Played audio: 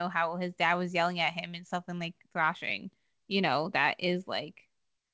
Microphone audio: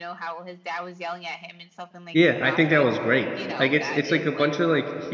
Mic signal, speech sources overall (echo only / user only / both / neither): both